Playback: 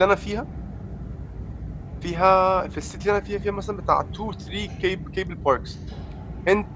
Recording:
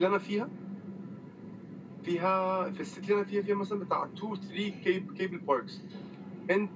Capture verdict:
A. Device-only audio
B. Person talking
A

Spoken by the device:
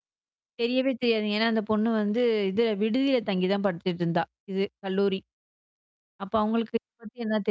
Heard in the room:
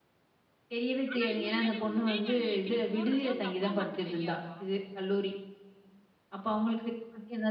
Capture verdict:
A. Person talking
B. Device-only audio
A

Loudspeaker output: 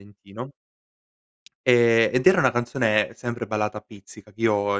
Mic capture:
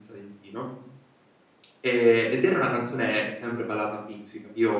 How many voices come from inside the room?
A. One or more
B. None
B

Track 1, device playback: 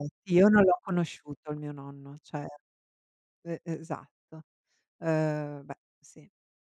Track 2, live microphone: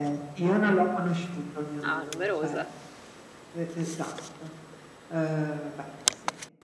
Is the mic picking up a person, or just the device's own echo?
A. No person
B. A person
B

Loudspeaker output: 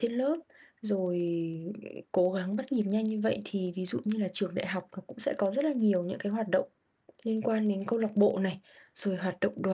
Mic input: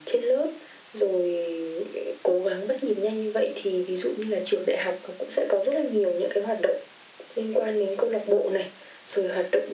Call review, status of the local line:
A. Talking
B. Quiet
B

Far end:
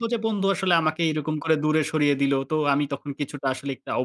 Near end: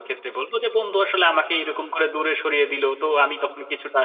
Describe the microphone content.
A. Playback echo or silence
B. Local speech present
A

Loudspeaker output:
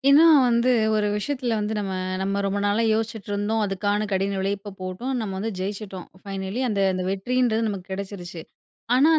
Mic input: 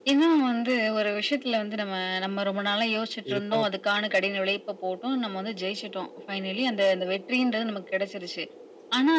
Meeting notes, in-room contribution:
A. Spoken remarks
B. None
A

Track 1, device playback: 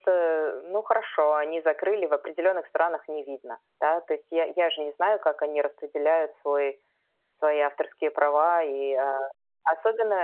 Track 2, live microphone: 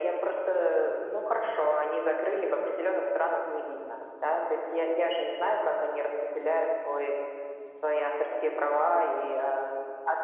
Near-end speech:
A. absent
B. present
A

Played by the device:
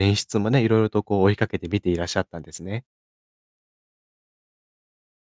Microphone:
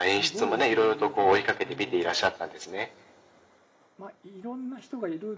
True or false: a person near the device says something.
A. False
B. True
B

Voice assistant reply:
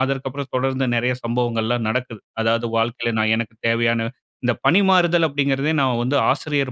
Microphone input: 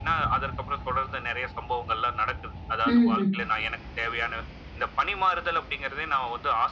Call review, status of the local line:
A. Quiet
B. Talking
B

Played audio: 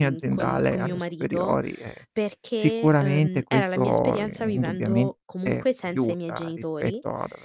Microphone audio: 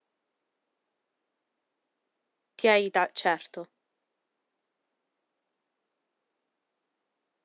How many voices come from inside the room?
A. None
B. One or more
B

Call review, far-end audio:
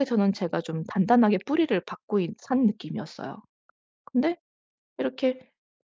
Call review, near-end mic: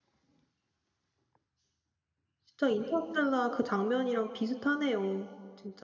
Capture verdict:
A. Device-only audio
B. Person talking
B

